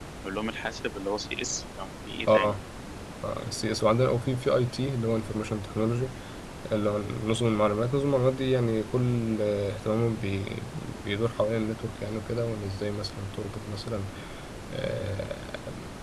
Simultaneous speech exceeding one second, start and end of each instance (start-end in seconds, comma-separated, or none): none